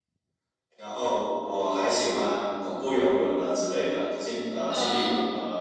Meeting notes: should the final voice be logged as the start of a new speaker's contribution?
No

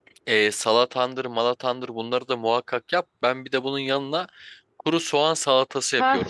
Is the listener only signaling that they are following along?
No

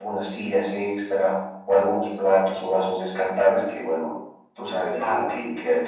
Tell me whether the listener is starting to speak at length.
No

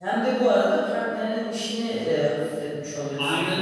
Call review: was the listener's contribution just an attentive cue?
No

